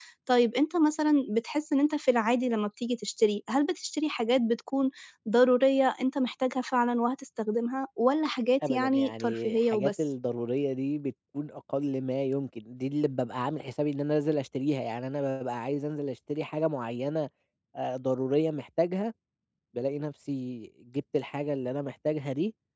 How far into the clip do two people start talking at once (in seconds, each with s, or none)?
8.6 s